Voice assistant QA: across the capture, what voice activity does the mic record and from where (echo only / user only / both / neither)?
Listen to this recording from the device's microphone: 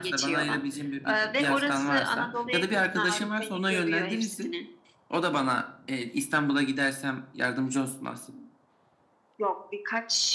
echo only